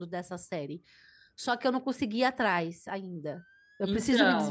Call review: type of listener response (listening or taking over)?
listening